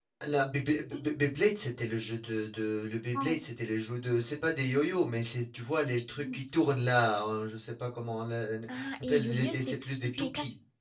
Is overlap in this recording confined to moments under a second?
No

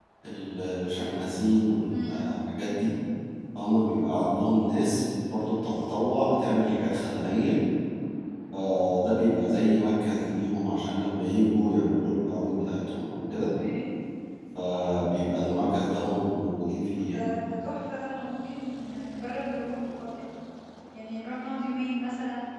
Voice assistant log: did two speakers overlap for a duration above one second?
No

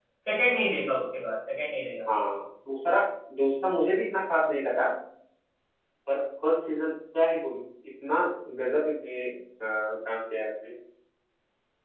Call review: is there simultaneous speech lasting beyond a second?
No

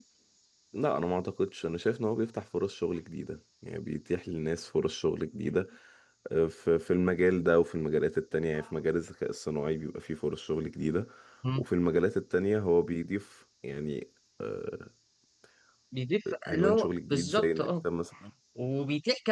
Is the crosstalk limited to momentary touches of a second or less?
No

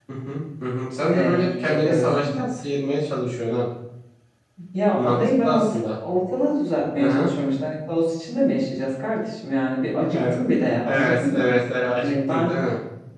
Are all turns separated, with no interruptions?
No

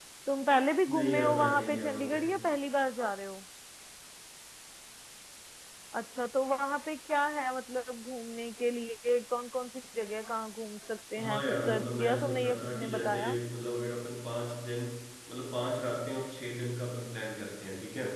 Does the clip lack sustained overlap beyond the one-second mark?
No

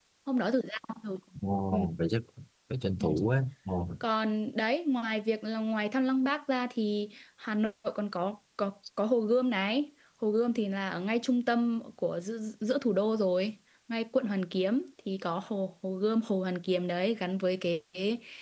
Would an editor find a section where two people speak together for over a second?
No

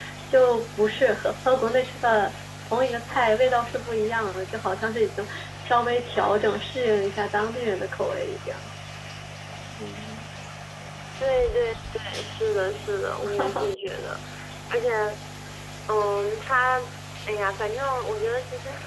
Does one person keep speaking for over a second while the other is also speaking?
No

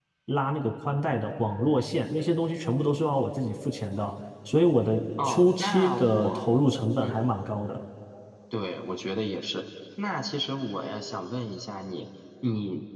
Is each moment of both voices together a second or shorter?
No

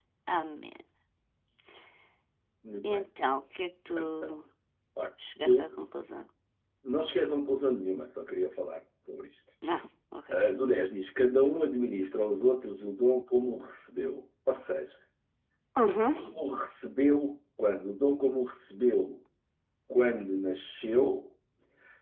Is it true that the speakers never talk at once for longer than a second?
Yes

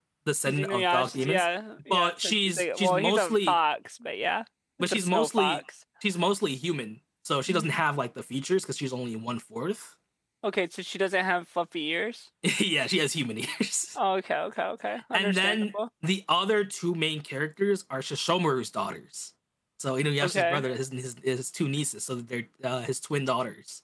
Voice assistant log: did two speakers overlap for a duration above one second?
Yes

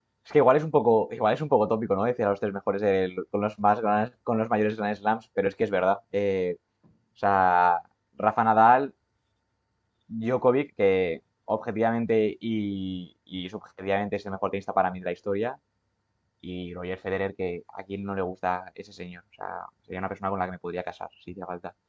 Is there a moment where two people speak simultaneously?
No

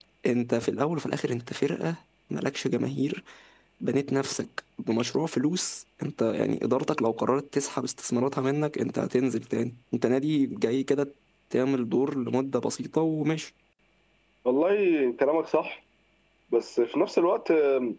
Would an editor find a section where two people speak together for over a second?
No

